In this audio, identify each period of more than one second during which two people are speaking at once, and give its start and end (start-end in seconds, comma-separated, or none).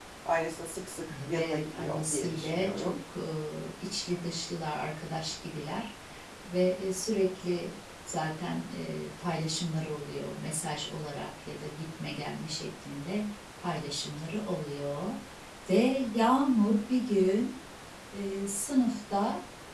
1.3-3.0